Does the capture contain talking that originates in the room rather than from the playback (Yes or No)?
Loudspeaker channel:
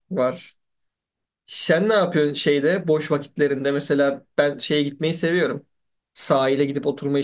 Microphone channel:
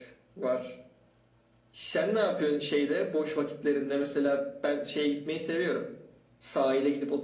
No